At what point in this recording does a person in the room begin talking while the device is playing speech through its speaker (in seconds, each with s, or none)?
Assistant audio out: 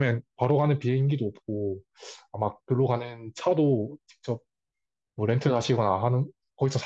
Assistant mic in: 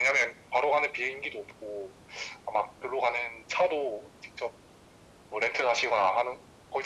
none